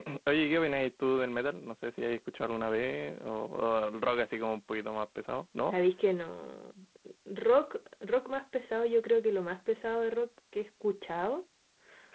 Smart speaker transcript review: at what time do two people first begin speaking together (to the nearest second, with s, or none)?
none